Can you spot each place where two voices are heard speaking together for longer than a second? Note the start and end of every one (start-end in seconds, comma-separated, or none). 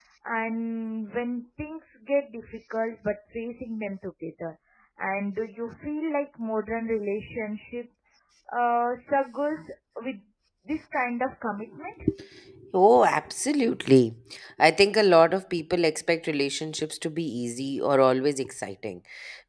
none